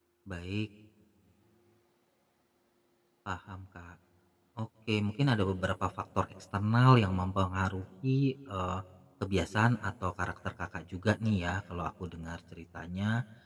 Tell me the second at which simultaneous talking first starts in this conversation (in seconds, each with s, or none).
none